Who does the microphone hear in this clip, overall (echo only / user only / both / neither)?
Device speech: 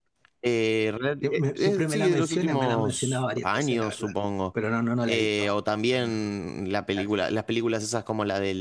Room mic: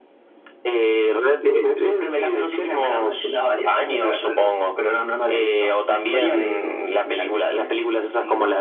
both